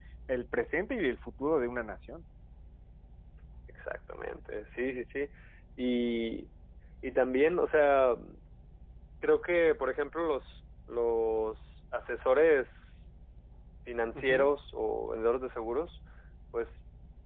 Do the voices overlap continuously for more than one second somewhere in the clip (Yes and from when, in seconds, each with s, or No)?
No